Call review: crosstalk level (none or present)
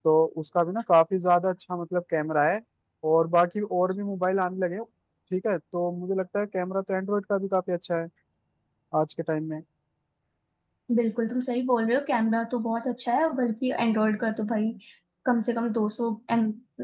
none